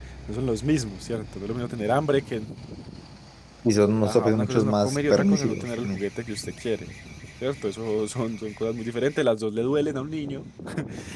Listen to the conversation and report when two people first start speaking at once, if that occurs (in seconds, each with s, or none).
4.0 s